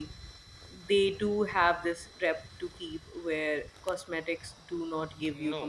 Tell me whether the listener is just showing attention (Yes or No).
No